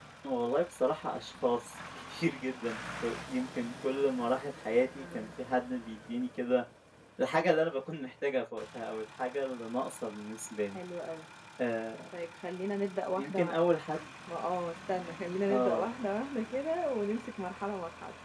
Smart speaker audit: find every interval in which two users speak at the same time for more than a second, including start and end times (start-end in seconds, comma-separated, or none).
none